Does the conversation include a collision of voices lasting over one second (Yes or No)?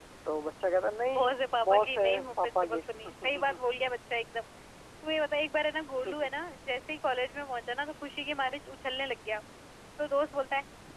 Yes